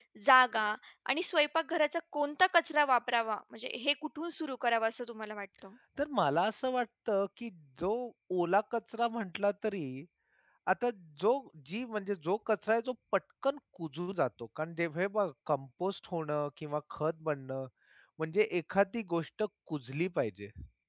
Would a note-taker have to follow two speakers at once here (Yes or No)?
No